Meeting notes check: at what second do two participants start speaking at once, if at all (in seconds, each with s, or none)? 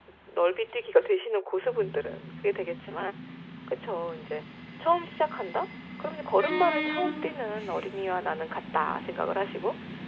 none